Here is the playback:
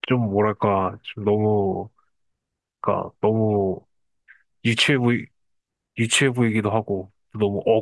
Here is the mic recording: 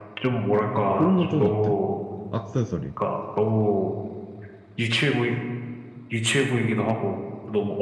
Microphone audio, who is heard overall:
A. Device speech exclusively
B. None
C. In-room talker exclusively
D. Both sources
D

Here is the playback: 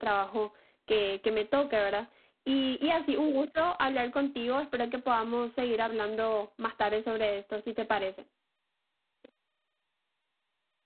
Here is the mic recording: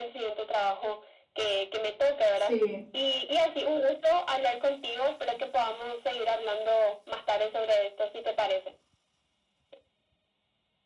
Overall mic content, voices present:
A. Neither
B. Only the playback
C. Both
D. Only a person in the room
C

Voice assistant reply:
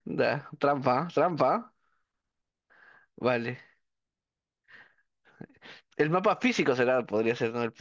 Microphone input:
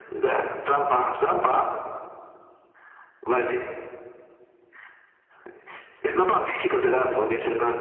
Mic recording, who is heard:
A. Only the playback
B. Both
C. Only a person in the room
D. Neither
A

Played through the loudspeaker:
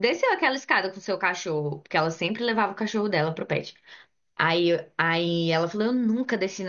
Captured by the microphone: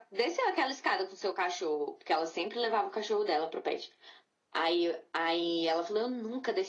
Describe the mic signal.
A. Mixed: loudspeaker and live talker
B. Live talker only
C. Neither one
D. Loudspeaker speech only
D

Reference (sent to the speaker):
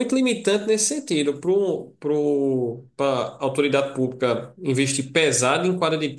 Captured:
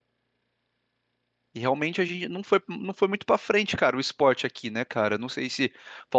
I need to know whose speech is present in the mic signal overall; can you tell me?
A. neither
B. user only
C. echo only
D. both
B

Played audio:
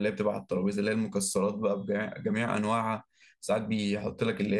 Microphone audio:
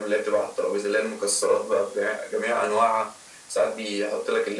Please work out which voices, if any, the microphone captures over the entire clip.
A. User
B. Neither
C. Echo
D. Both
C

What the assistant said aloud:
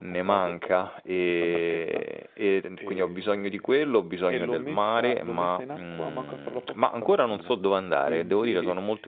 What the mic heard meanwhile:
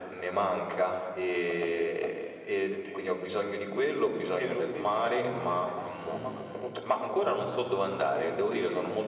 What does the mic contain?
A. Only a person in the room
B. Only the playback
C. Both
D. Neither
B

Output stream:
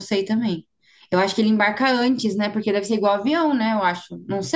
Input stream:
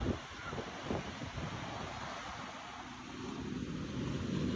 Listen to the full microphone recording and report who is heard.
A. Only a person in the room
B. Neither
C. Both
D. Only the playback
B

